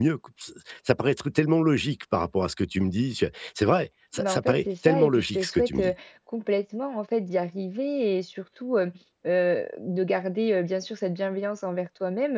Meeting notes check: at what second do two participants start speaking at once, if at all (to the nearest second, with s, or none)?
4 s